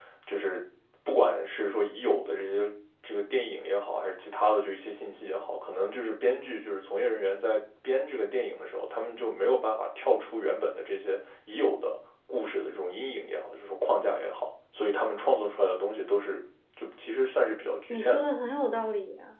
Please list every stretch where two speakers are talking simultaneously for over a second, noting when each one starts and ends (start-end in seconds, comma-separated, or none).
none